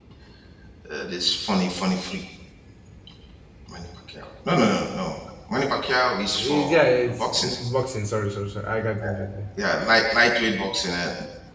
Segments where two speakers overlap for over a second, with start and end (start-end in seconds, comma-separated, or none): 6.3-7.5